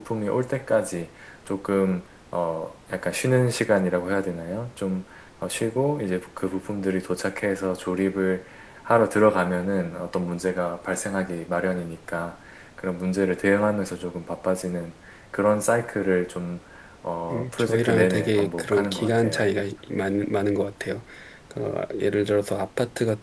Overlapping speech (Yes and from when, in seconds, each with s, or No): Yes, from 17.3 s